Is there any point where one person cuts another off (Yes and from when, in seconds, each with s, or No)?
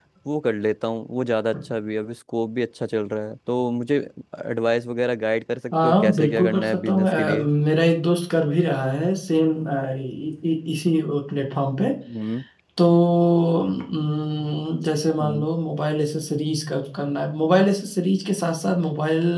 Yes, from 5.8 s